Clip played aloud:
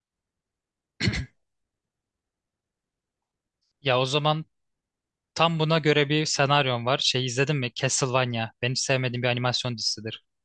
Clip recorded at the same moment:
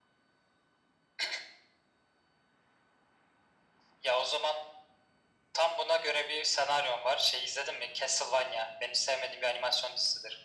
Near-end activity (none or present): none